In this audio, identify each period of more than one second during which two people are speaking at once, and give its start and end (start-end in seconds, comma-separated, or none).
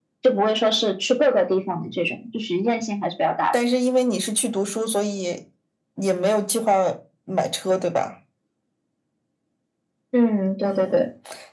none